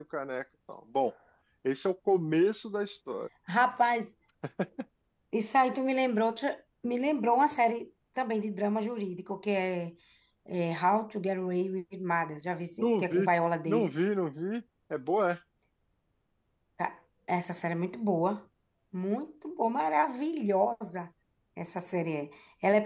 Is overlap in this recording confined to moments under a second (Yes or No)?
Yes